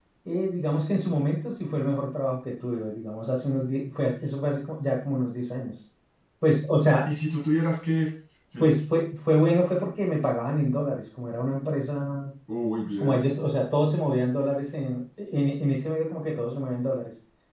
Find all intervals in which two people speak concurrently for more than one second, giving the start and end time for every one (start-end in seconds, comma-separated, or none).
none